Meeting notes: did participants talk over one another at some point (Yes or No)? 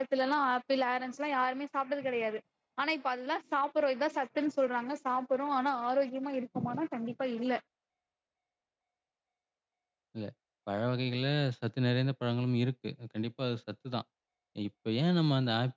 No